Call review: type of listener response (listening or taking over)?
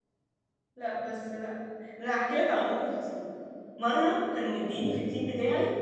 listening